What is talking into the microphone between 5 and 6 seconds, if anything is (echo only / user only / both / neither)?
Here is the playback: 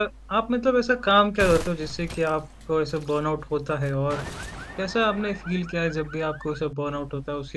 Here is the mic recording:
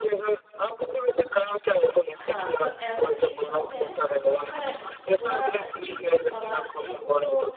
both